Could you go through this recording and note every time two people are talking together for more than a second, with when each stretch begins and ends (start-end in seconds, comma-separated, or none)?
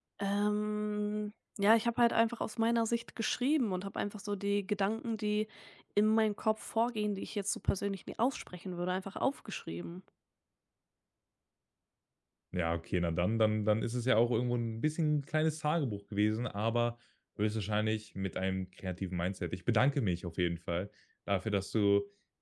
none